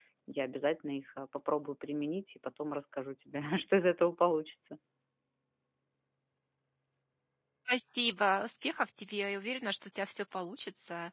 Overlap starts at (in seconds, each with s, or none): none